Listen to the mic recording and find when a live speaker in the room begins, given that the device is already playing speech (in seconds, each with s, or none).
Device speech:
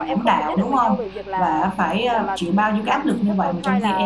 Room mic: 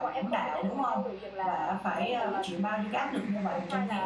1.9 s